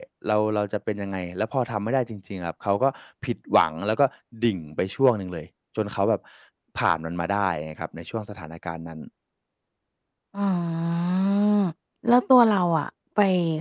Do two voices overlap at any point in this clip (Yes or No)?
No